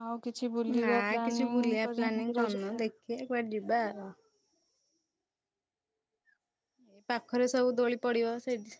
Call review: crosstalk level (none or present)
present